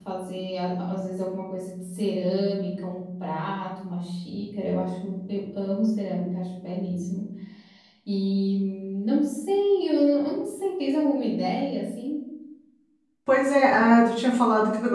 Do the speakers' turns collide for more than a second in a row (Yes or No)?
No